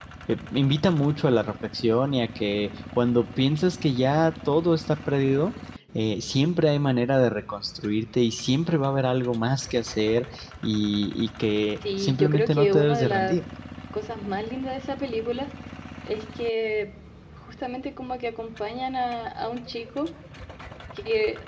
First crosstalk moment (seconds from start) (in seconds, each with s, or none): 11.8 s